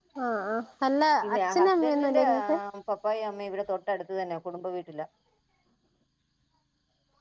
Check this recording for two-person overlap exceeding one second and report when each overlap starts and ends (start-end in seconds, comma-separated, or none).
1.2-2.5